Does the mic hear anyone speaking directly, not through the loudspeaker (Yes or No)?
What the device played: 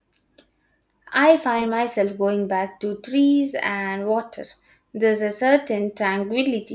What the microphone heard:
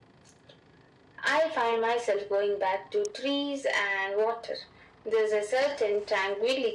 No